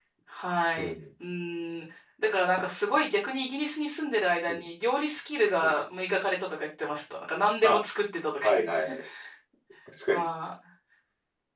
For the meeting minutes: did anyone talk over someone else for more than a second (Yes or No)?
No